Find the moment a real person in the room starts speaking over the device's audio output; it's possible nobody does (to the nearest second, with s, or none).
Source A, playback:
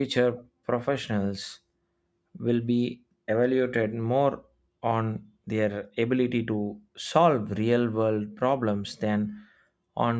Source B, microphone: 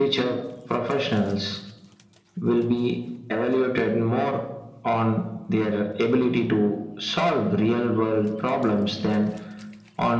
none